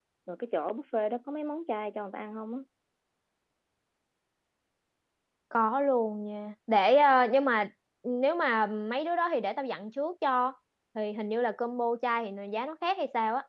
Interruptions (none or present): none